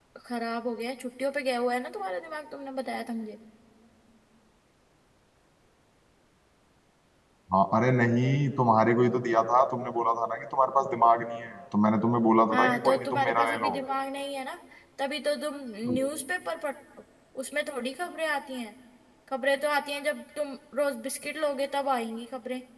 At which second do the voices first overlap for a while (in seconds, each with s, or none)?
12.5 s